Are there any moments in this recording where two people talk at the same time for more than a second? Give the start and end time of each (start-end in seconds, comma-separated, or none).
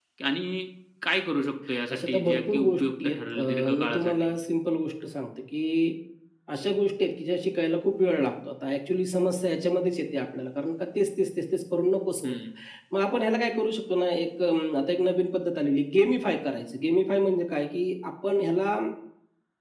1.9-4.2